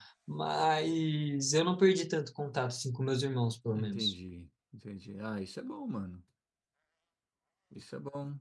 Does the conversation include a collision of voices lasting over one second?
No

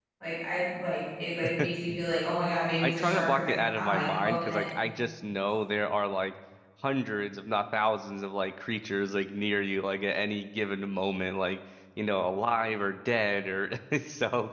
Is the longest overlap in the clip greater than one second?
Yes, from 2.8 s

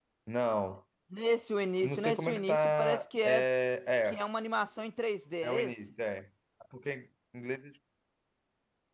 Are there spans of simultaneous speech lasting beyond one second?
Yes, from 1.8 s

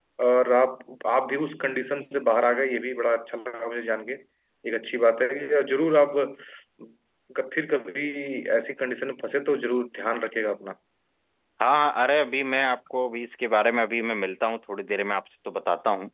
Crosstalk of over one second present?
No

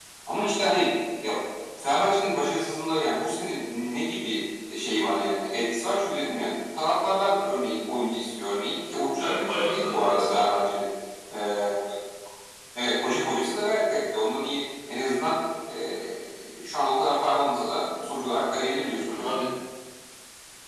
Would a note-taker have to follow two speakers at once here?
Yes, from 9.1 s

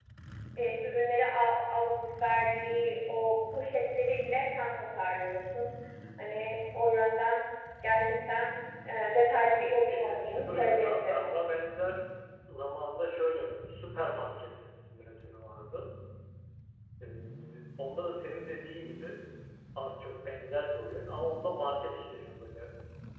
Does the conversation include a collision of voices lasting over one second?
Yes, from 9.9 s

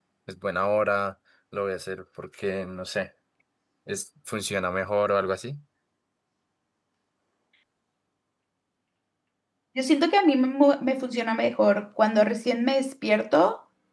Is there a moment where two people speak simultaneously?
No

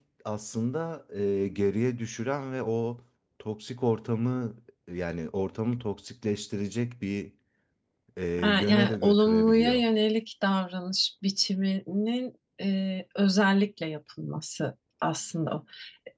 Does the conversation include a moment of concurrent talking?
Yes, from 8.4 s

